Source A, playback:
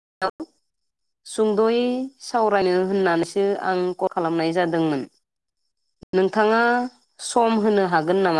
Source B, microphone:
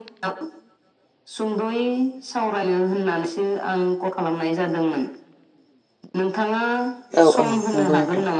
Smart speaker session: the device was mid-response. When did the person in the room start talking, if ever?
7.2 s

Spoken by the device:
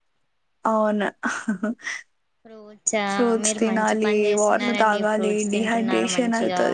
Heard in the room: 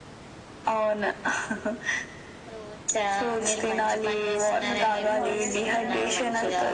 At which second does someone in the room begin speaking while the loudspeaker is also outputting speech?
4.9 s

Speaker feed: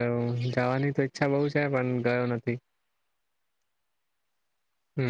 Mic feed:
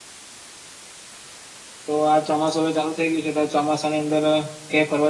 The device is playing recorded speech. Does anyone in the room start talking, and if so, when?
1.9 s

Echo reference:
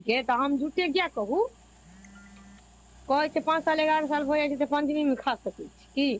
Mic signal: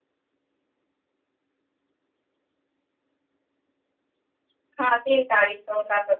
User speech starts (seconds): 4.8 s

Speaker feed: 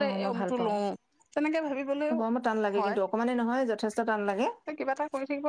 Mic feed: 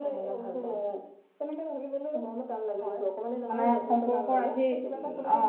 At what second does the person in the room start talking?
3.5 s

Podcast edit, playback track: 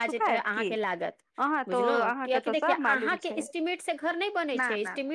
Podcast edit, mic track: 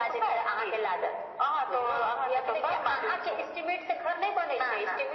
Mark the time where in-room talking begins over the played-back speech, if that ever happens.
none

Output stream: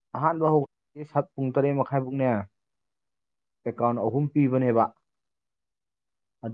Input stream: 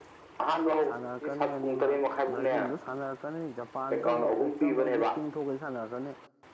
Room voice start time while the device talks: 0.9 s

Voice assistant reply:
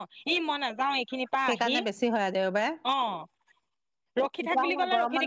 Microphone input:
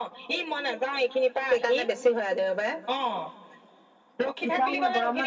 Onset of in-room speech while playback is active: none

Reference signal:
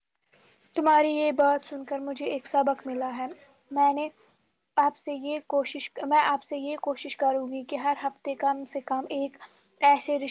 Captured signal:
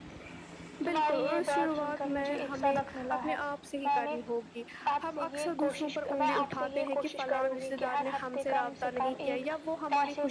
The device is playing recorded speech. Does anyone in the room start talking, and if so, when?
0.8 s

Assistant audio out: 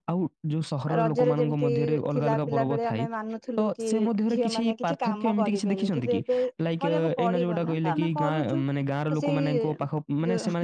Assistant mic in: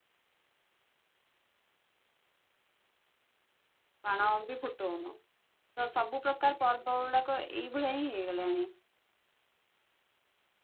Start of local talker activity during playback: 4.1 s

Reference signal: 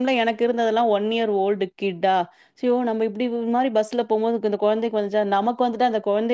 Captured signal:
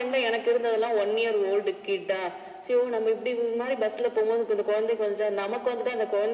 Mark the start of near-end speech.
none

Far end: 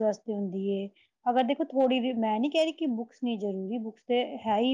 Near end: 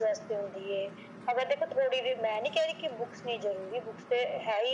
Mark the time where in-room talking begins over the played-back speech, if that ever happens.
none

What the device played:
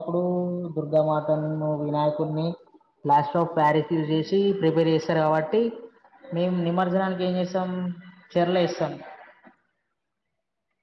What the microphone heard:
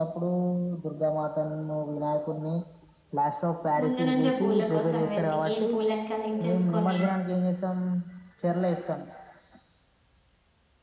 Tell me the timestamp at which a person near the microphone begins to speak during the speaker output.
3.8 s

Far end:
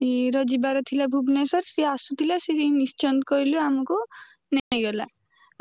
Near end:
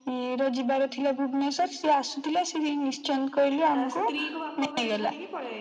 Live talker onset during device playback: 3.8 s

